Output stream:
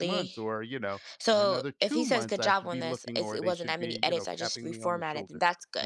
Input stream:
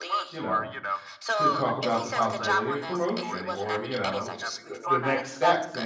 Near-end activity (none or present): present